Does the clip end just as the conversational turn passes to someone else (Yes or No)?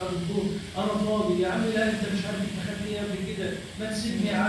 No